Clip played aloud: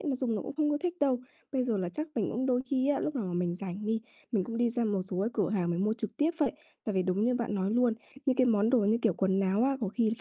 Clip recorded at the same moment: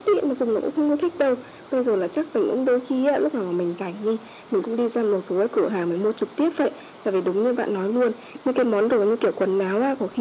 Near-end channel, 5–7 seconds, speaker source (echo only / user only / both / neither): echo only